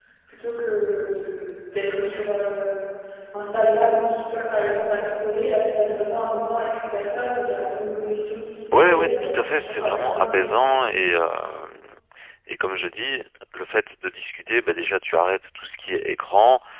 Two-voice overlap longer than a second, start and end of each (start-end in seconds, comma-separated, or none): 8.7-10.6